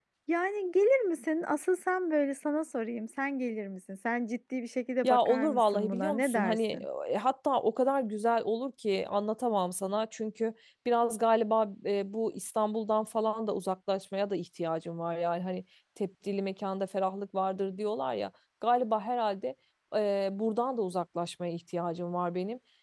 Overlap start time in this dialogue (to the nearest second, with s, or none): 5 s